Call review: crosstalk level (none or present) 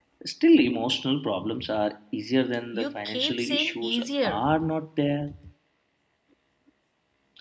present